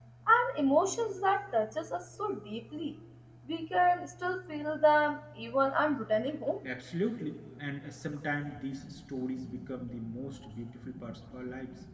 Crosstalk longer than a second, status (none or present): none